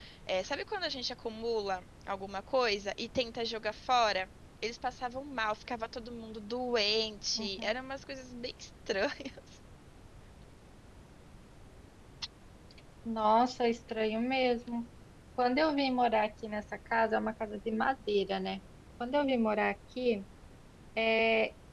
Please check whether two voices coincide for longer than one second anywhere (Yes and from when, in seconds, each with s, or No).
No